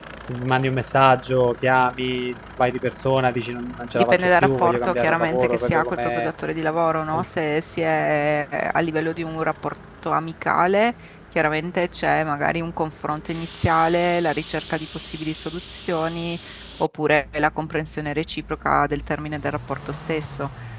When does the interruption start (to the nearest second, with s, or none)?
4 s